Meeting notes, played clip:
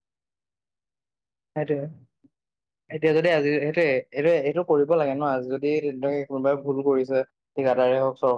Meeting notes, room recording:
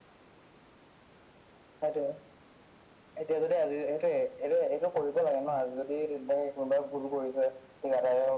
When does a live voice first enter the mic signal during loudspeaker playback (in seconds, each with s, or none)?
none